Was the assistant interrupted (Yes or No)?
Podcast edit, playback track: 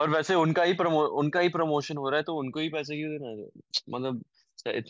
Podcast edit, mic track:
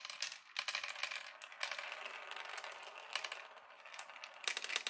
No